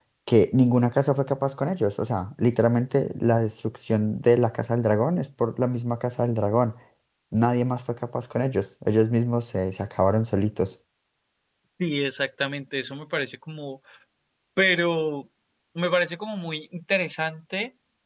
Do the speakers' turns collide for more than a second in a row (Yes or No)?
No